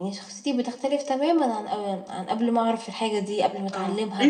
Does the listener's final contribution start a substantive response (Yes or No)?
Yes